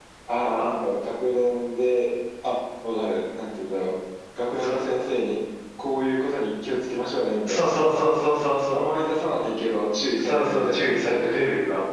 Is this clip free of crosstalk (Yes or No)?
No